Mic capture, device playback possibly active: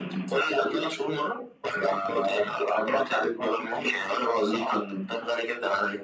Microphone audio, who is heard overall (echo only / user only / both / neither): echo only